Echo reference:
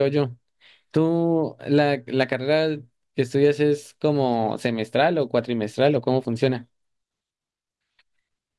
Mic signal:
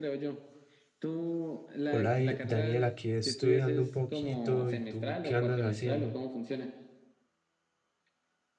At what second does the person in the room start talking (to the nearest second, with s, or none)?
2 s